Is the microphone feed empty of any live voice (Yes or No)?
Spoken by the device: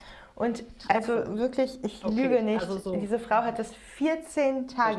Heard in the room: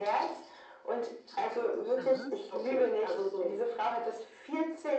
No